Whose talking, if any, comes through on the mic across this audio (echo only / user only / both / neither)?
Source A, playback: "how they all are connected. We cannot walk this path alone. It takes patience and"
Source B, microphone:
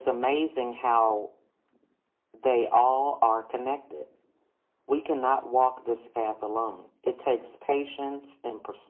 echo only